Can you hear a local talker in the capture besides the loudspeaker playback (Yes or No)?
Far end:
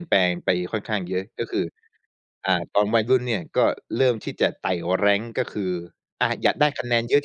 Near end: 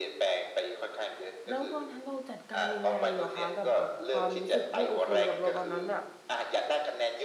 Yes